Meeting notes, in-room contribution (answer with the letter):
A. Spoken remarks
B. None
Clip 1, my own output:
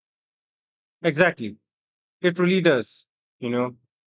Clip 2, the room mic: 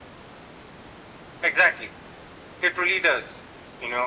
B